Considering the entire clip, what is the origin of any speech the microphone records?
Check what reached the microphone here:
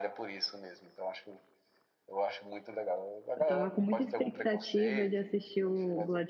both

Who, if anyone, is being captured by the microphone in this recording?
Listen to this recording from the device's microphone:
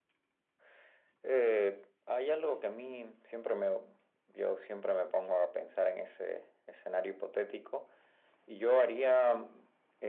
echo only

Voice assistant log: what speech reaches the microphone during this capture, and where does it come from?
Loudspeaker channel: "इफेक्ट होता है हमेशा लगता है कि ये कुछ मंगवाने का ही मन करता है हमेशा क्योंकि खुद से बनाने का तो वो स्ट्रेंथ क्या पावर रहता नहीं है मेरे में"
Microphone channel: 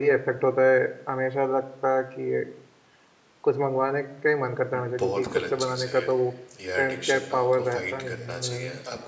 both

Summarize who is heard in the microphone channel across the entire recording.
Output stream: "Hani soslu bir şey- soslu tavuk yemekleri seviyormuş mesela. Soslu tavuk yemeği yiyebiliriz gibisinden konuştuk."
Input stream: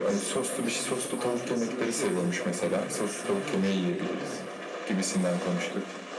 both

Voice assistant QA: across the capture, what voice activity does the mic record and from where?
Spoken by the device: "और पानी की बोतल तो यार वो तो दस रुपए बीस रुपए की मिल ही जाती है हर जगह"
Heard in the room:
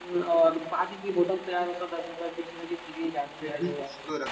both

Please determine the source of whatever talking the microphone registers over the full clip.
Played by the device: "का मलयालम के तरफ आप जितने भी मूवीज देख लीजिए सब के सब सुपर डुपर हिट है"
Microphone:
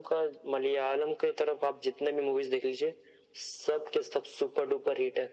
echo only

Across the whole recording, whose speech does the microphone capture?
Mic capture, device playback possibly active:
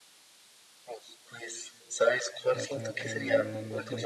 both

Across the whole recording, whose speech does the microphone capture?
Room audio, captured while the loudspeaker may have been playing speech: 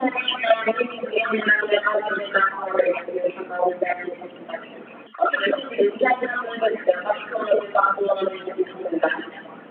echo only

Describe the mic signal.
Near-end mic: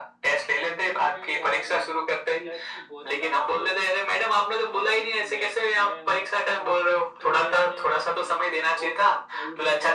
both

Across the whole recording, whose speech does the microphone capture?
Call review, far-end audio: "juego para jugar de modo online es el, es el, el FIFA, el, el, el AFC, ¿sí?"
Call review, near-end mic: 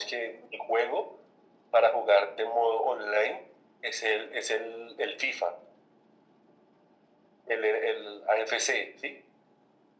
echo only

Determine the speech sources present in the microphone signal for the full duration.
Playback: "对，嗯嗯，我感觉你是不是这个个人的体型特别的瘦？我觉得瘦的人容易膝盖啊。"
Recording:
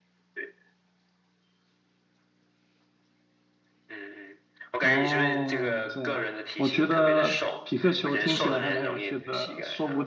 both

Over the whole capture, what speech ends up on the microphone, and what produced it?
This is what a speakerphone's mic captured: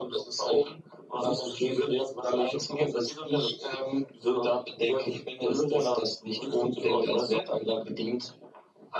echo only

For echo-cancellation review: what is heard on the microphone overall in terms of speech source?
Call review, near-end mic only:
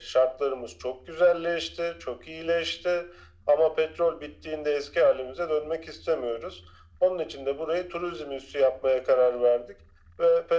echo only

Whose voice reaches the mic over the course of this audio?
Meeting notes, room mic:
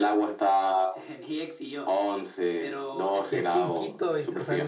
both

